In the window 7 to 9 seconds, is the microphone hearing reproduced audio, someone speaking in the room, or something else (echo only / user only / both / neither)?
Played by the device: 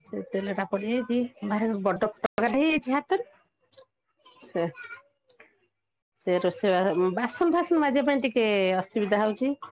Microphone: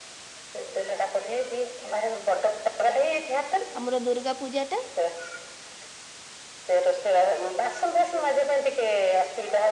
echo only